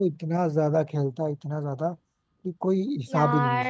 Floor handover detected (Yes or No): Yes